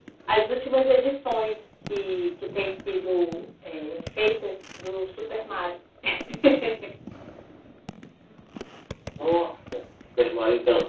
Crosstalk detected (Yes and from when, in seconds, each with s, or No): No